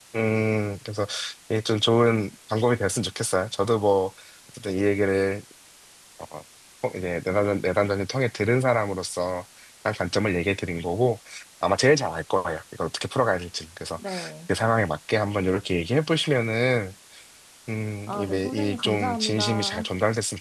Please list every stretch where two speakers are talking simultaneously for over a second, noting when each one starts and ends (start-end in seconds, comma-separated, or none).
18.1-19.9